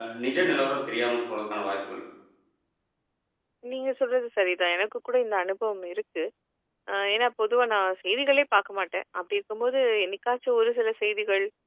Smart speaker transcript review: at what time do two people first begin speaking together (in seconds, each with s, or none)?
none